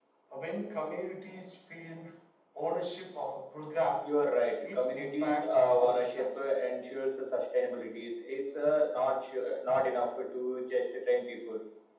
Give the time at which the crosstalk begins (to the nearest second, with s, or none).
5 s